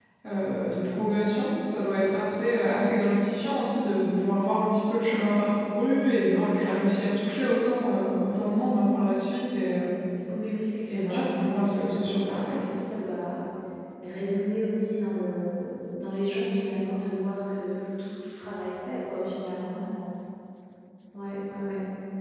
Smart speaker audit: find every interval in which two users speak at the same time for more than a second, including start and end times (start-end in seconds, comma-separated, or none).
10.9-12.6